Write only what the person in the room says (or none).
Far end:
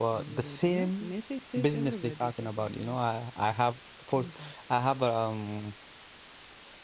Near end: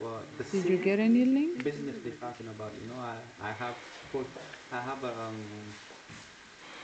Did you get any link?